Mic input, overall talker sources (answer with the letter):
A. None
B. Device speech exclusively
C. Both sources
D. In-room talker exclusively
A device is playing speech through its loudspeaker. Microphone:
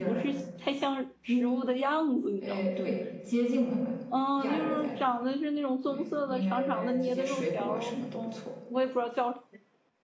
C